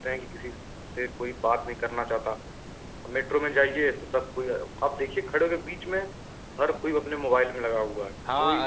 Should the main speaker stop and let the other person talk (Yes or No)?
Yes